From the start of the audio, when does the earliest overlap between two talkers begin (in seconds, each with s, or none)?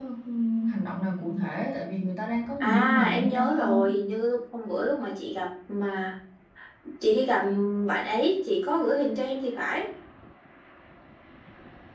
2.6 s